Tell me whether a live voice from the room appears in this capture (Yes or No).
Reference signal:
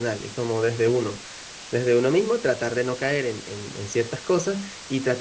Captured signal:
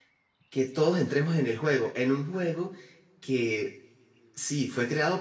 Yes